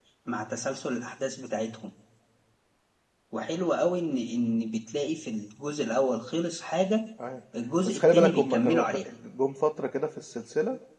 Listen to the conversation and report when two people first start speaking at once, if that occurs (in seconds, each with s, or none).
7.8 s